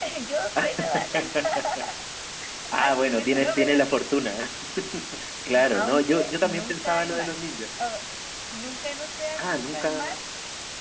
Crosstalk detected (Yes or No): Yes